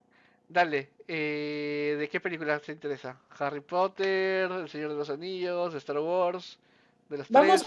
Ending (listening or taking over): taking over